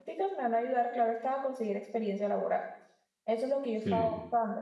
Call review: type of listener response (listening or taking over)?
listening